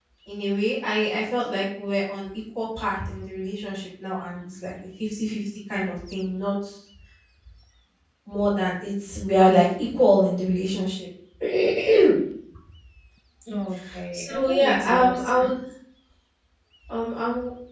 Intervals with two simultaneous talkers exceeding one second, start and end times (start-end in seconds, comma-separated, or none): 14.1-15.5